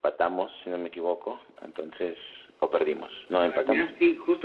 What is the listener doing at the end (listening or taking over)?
taking over